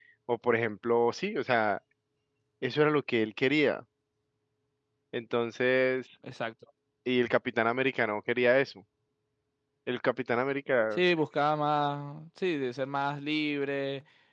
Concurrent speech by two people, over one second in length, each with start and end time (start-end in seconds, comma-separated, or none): none